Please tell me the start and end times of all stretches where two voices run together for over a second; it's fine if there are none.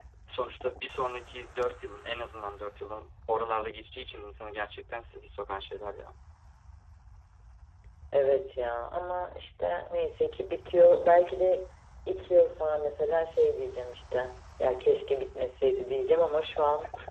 none

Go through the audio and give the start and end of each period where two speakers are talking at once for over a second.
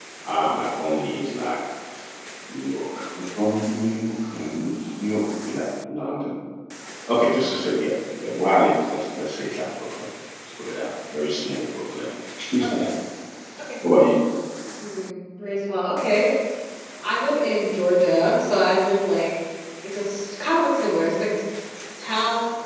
none

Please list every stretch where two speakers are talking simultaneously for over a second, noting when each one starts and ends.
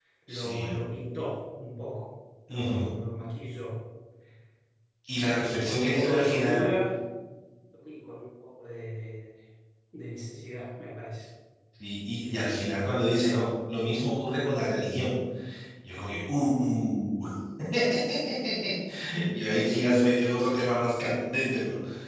5.2-6.6

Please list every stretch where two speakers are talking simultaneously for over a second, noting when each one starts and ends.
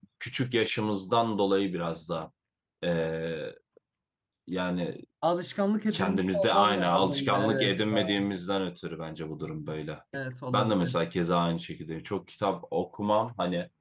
5.9-8.2

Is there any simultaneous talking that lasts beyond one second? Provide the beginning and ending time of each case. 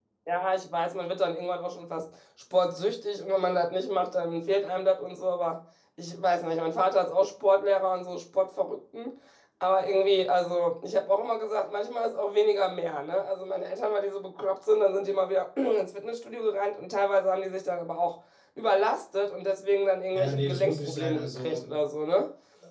20.1-21.7

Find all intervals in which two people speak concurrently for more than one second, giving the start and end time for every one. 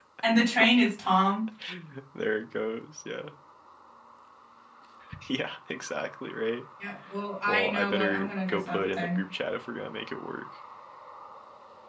7.5-9.2

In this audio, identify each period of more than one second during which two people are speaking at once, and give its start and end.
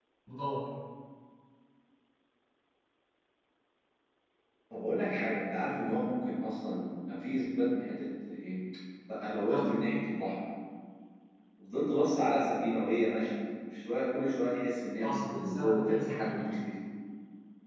15.0-16.4

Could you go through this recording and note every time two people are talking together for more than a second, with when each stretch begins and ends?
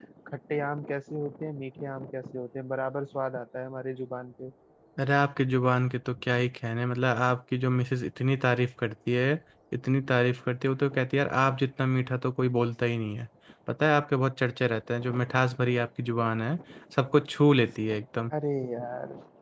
none

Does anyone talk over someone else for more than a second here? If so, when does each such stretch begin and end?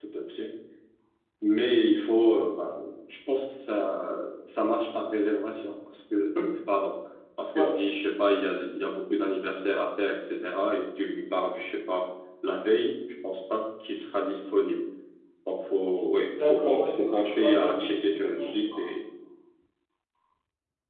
16.4-18.7

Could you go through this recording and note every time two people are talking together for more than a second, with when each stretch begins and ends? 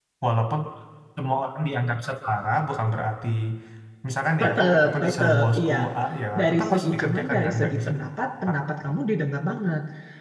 4.4-5.8, 6.4-7.9

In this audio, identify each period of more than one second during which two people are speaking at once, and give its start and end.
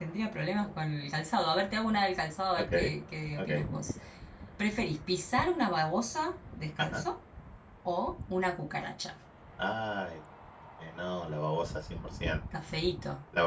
none

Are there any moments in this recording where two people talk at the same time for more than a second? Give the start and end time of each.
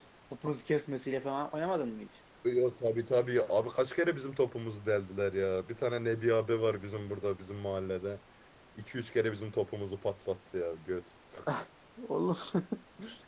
none

